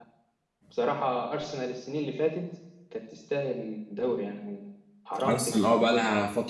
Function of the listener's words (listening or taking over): taking over